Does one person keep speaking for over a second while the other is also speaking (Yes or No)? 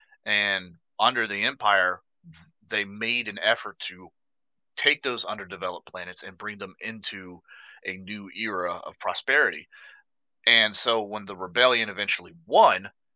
No